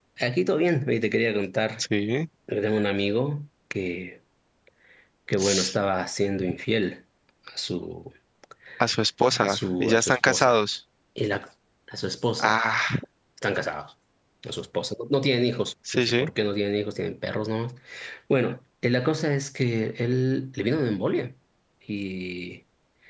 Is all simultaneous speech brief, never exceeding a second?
No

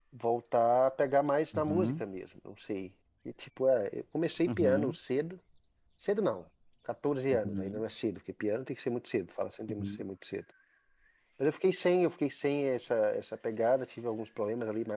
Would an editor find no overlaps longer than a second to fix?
Yes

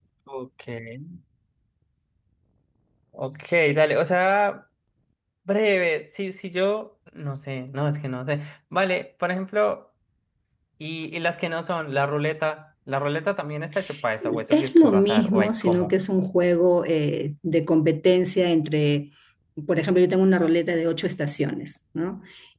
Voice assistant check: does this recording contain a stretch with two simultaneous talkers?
Yes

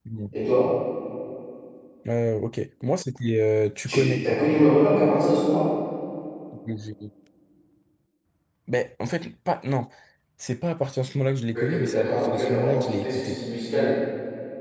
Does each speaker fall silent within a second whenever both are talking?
No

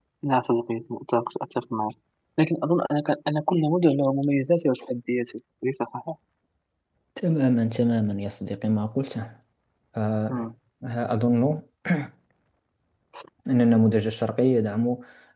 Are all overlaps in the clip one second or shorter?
Yes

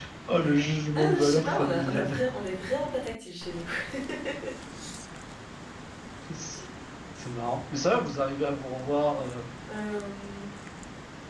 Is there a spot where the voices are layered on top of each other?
Yes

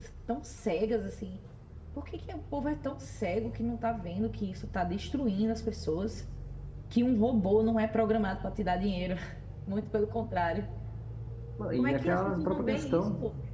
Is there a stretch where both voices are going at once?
Yes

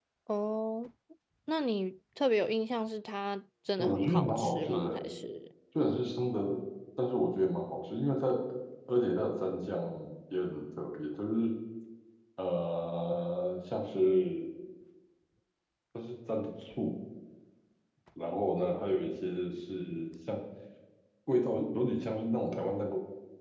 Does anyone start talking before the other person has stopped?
Yes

